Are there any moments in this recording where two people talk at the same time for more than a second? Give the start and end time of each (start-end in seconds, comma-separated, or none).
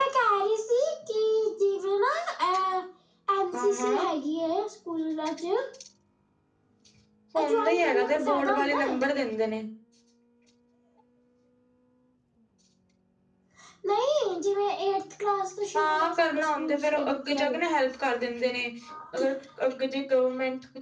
7.4-9.0, 15.7-17.6